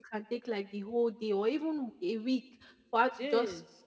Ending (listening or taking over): listening